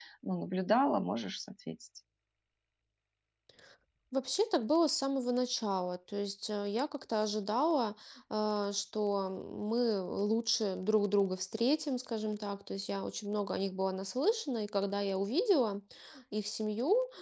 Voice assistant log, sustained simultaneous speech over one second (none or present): none